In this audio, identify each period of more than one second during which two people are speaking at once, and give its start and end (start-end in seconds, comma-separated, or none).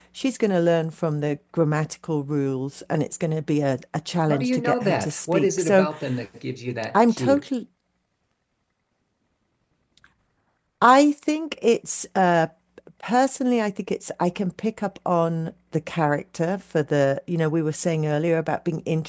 4.3-5.9